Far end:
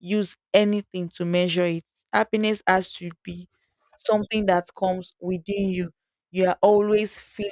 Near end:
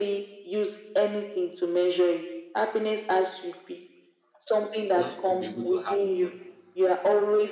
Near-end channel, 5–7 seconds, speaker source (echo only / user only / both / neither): both